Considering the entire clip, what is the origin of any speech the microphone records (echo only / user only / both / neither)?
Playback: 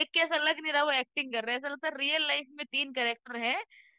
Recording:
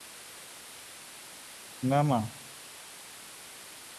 user only